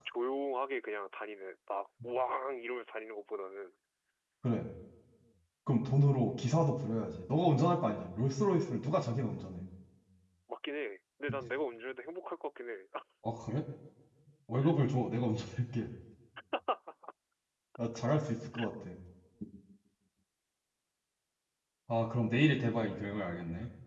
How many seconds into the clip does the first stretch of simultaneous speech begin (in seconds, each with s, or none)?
none